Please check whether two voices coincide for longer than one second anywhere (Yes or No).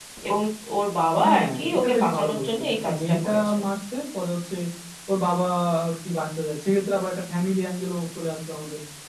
Yes